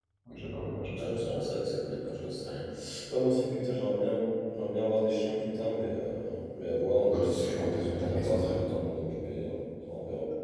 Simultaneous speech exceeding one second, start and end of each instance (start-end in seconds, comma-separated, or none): 7.1-8.6